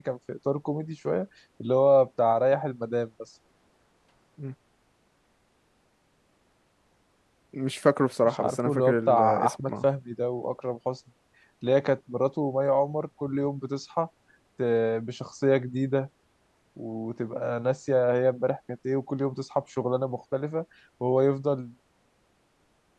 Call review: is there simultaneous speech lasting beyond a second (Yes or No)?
Yes